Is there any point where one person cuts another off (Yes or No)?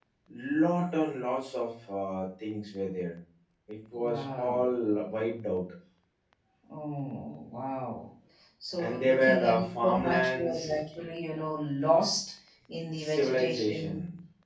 Yes